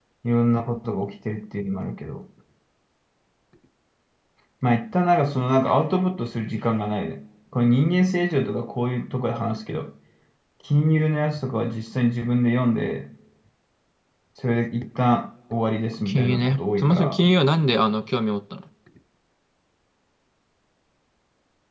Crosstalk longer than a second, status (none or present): present